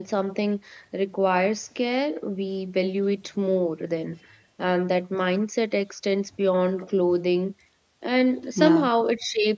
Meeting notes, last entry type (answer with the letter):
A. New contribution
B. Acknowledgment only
B